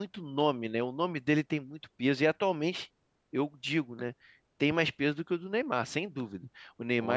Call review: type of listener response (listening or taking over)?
listening